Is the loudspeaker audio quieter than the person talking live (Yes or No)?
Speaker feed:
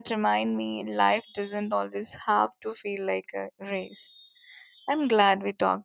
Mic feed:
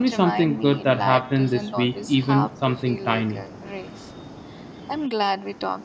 Yes